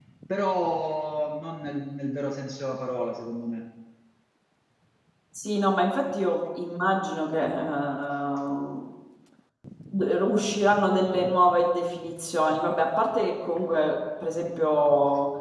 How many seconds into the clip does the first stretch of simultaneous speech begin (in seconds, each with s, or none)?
none